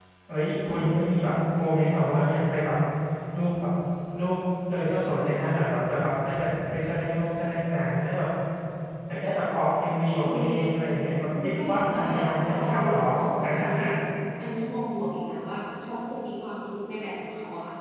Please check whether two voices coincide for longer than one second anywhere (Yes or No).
Yes